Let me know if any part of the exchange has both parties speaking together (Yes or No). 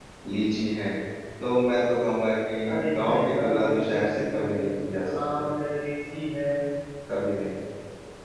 Yes